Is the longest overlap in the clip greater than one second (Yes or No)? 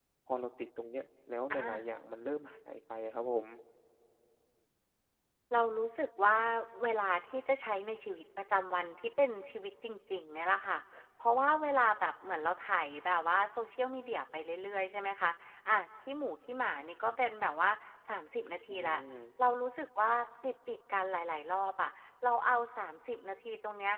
No